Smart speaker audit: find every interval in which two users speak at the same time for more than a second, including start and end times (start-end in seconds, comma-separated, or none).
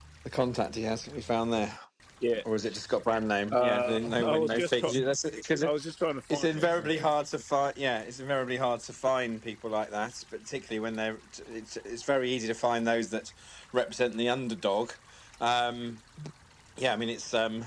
3.6-4.9